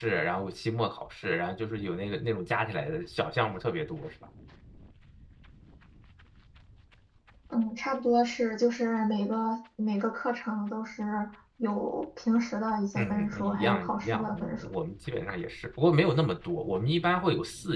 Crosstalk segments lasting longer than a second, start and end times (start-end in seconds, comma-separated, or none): 13.0-14.7